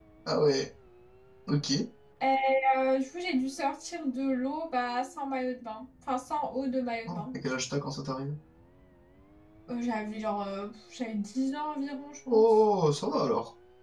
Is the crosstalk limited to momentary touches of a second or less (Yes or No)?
Yes